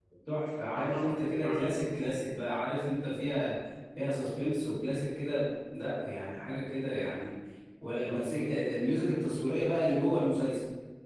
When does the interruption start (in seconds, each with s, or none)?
0.8 s